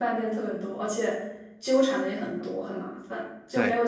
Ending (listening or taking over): listening